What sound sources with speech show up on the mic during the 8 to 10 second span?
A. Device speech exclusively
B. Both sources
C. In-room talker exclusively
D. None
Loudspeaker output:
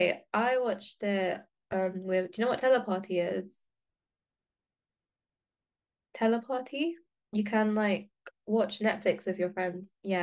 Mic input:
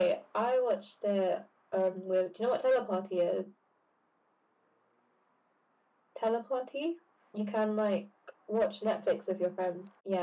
A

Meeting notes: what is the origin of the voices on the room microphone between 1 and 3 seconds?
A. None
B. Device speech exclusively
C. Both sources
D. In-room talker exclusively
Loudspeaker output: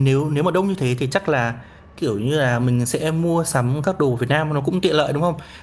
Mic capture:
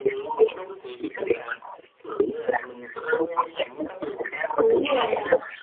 B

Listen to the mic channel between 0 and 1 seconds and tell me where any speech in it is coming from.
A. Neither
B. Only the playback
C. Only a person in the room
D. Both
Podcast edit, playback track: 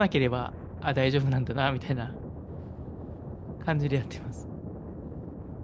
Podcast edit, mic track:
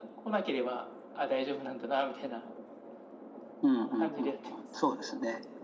B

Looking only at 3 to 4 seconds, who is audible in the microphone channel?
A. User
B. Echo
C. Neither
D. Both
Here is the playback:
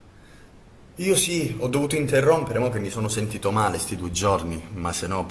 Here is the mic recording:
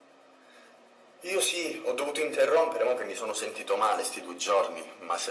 B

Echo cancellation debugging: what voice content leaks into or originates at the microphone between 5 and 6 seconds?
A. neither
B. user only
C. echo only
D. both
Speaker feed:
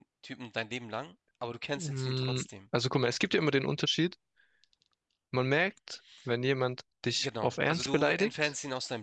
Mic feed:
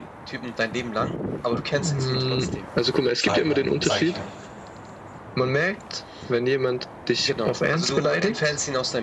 C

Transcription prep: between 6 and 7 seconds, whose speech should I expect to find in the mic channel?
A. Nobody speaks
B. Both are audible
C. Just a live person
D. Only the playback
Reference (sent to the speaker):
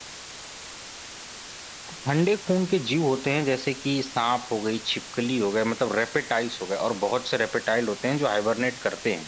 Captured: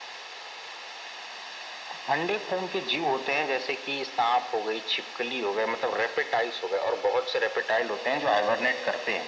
D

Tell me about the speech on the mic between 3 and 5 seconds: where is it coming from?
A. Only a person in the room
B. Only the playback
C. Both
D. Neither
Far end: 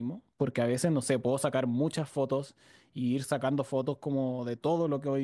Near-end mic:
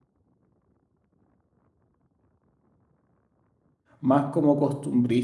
A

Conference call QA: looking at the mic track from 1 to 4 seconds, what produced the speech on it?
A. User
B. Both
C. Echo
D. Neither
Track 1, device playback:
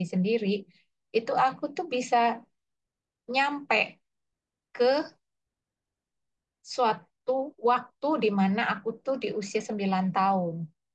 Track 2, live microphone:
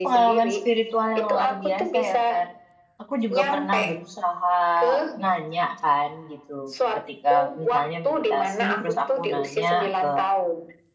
B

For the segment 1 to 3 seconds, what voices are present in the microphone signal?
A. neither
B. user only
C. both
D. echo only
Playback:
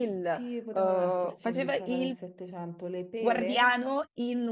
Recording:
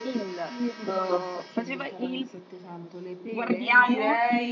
D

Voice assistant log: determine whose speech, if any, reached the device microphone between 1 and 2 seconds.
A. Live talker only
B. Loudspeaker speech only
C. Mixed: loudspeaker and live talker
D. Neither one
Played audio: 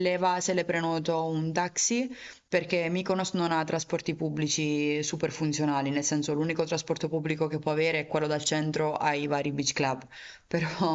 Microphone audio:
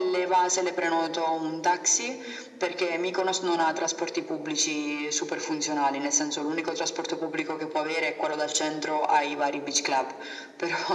B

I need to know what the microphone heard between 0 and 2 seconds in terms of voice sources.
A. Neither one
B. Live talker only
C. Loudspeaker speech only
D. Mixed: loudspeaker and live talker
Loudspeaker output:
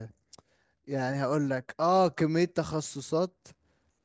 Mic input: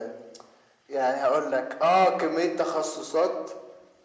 C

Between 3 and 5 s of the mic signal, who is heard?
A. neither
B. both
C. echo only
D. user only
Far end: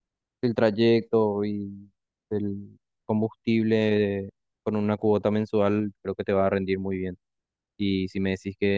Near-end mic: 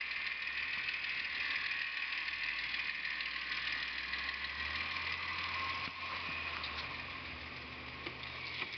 A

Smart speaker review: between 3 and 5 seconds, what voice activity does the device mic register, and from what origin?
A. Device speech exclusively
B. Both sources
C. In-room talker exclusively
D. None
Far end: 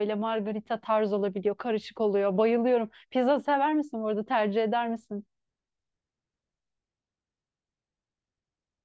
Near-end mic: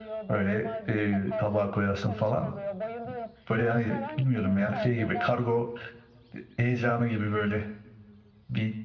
B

